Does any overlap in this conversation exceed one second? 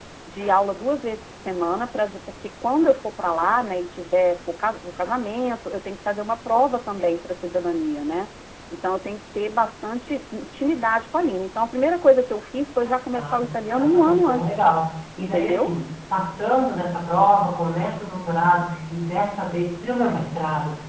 Yes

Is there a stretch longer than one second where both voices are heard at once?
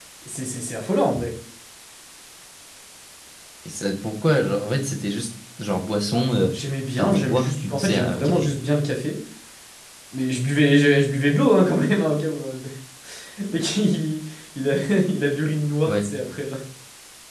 Yes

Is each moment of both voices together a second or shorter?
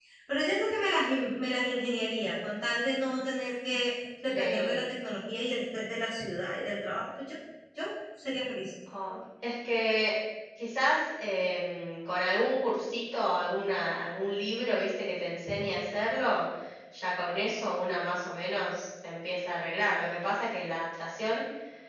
Yes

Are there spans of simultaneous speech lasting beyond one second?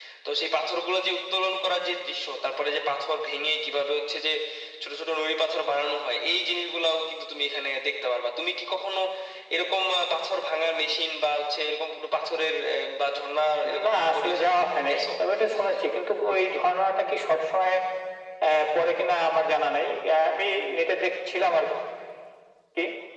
Yes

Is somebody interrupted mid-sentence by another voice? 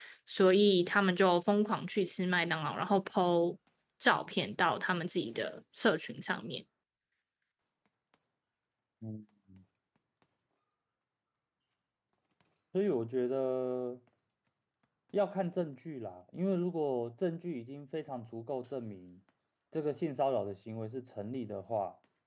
No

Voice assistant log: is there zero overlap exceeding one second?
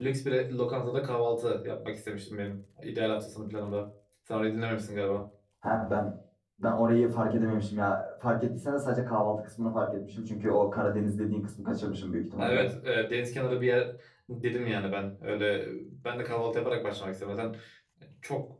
Yes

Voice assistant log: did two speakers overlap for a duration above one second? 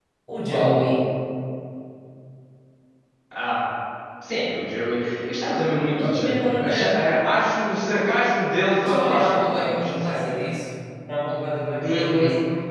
Yes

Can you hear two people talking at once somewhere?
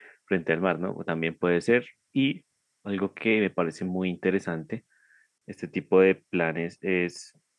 No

